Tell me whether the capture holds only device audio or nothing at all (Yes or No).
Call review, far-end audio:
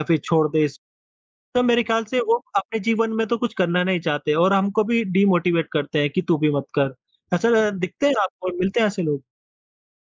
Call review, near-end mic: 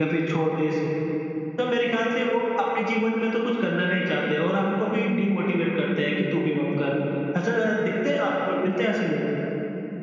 Yes